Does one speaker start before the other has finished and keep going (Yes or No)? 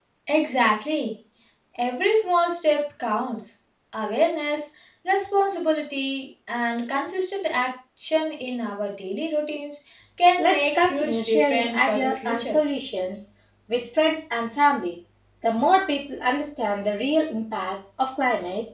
Yes